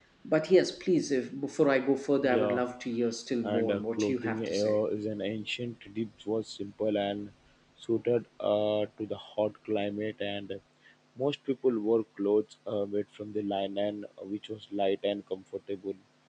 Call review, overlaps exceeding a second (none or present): present